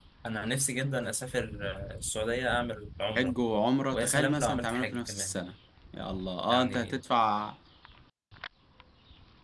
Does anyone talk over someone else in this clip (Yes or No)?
Yes